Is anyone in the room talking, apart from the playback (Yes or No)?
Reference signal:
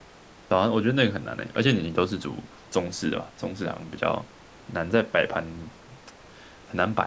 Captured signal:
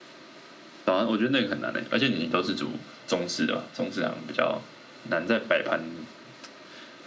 No